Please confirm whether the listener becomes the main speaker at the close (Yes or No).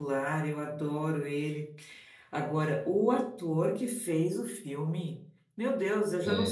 No